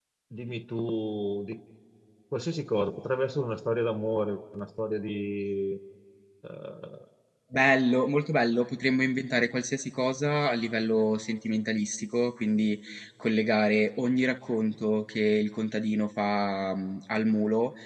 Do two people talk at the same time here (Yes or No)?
No